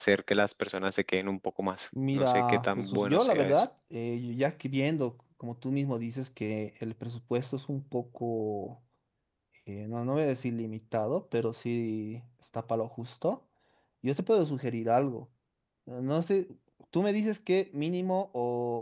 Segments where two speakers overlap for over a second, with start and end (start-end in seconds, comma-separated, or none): 2.1-3.6